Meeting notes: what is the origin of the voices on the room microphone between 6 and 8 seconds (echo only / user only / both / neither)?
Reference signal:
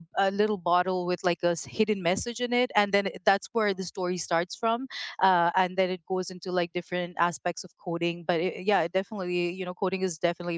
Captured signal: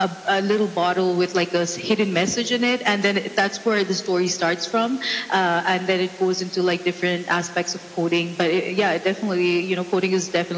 echo only